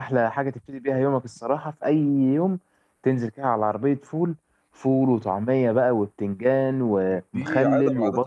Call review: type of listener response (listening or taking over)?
taking over